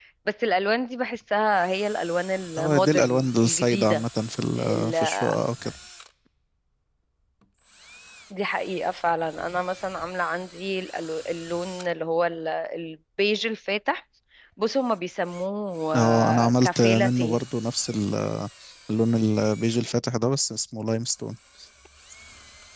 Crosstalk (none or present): present